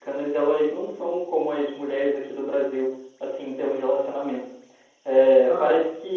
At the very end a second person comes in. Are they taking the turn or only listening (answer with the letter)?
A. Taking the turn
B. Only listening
B